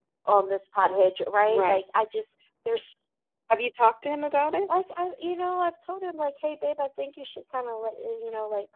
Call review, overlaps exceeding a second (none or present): none